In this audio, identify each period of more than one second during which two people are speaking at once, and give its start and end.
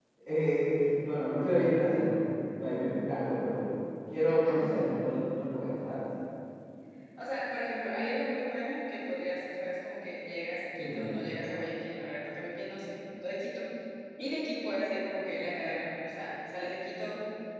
none

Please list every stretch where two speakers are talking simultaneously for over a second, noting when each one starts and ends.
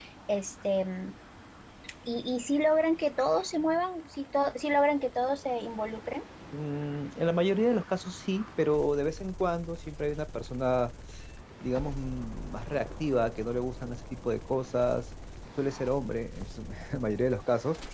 none

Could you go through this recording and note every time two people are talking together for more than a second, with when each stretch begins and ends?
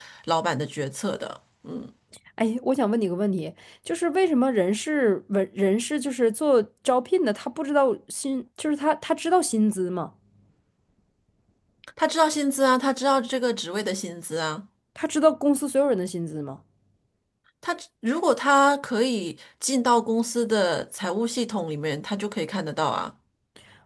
none

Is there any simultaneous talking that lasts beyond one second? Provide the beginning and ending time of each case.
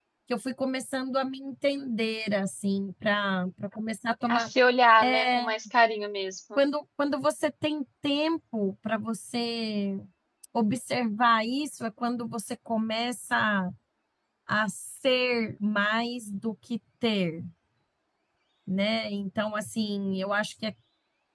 none

